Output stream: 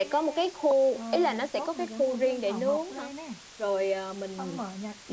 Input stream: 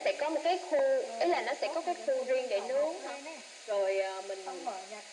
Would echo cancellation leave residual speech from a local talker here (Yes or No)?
No